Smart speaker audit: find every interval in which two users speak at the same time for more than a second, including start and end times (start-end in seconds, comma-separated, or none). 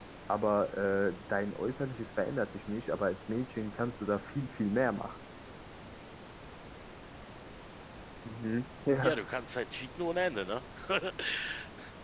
none